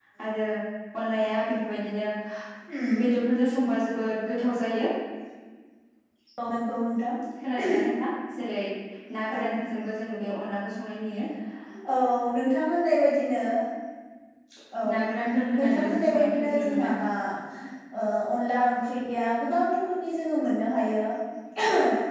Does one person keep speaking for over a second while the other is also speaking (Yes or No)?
Yes